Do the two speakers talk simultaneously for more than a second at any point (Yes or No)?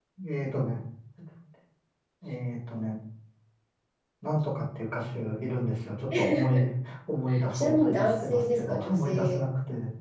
Yes